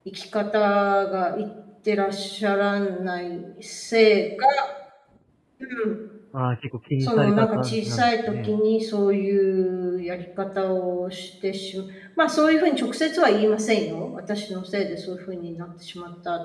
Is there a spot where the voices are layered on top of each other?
Yes, from 7.0 s

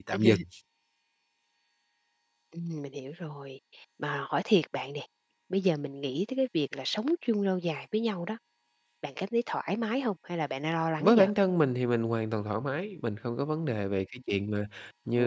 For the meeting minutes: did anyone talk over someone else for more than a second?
No

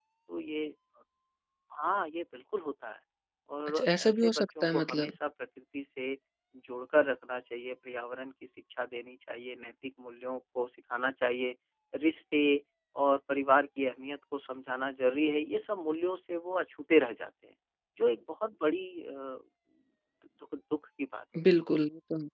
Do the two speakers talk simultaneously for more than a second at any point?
Yes, from 3.7 s

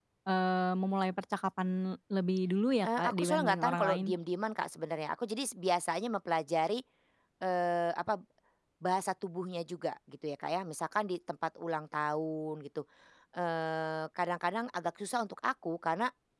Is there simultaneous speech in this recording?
Yes, from 2.8 s

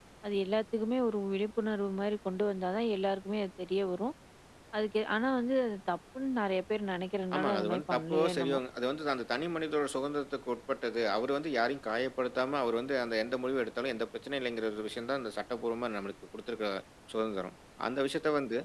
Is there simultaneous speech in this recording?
Yes, from 7.3 s

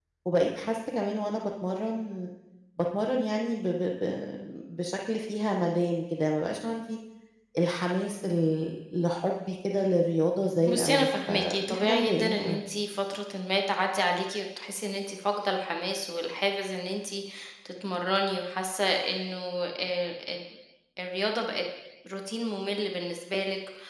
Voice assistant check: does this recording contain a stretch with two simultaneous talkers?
Yes, from 10.7 s

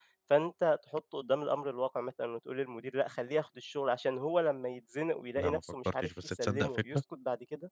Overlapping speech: Yes, from 5.4 s

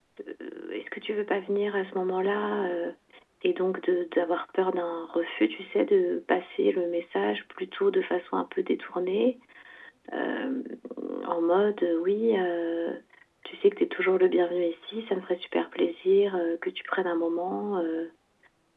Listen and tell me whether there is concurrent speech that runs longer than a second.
No

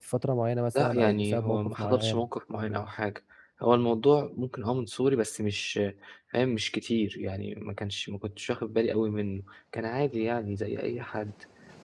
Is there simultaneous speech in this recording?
Yes, from 0.7 s

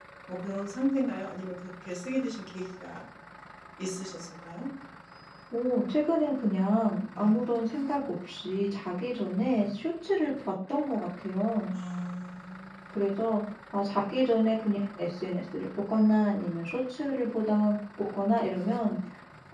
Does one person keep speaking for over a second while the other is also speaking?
No

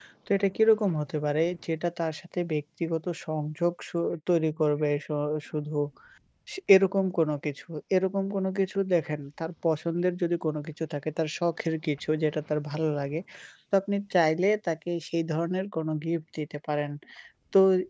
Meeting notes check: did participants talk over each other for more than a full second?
No

